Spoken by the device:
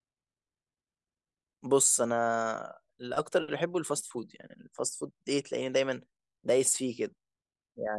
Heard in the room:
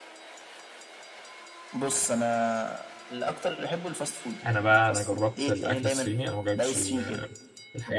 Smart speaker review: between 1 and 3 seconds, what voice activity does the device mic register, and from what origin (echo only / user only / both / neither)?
echo only